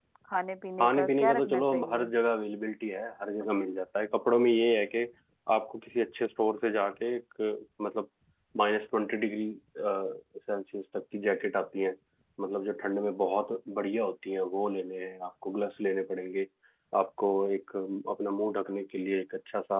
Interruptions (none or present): present